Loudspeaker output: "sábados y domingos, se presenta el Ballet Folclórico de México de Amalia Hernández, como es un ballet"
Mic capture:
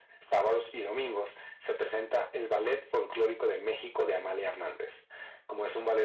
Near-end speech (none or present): none